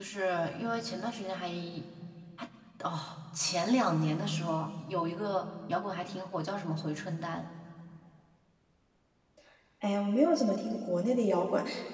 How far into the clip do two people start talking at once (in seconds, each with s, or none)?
none